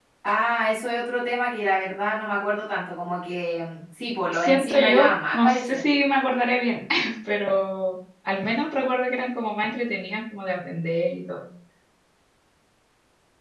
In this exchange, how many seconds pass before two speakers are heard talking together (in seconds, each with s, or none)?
4.3 s